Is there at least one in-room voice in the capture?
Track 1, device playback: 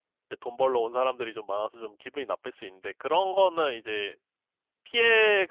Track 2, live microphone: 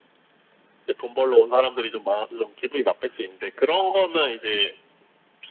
No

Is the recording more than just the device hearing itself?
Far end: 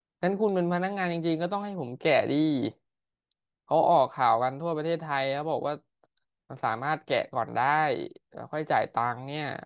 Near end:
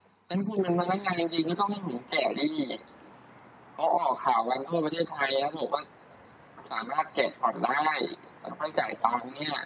No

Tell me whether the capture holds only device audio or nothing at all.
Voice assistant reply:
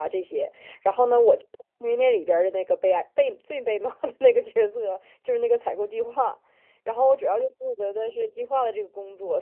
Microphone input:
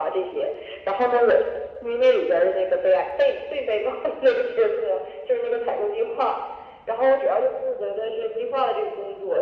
Yes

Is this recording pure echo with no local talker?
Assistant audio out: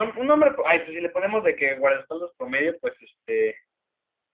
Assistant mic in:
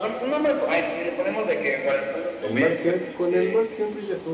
No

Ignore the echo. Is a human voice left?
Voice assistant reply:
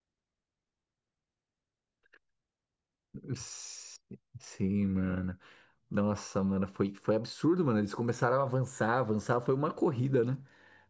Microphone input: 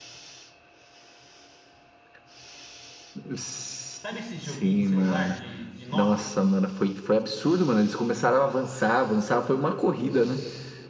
Yes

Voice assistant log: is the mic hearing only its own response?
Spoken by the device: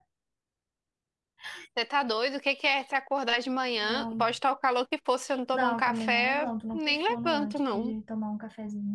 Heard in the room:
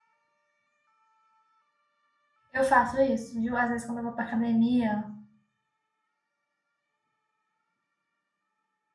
No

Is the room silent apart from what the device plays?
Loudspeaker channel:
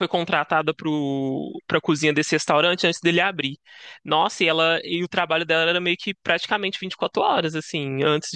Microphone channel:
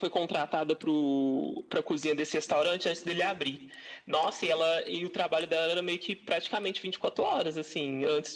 Yes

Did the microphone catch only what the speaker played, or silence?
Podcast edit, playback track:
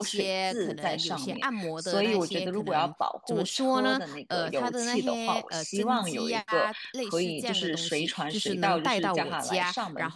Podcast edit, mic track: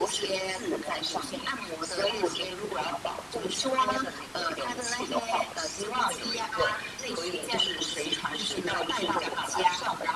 Yes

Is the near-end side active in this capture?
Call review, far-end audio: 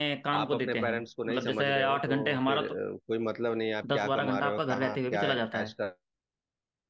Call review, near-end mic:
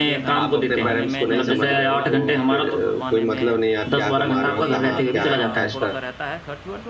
Yes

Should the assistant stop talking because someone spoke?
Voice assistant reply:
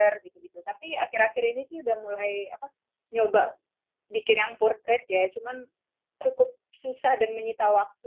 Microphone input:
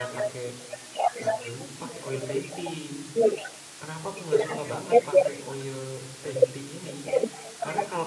Yes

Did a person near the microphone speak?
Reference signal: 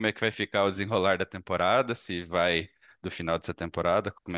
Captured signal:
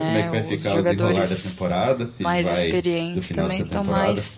Yes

